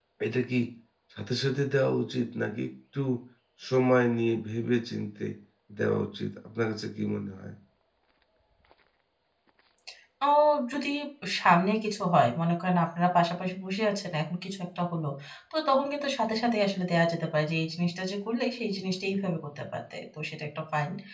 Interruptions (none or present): none